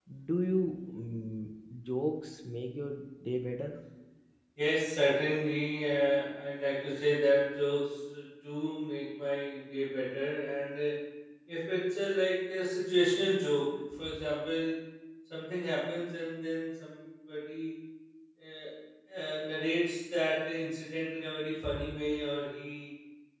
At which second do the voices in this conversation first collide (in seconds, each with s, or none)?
none